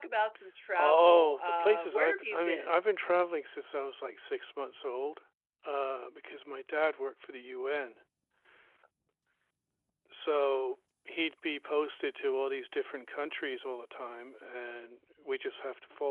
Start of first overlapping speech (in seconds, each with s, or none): 0.8 s